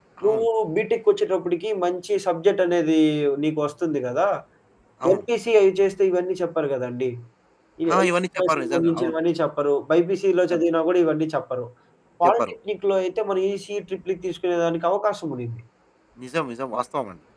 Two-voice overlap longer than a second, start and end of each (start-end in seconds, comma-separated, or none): 7.9-9.1